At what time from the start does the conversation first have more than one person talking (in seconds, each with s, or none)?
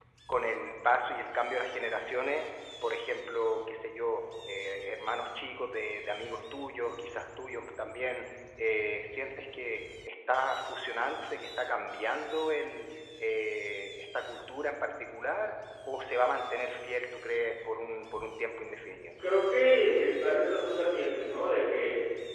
none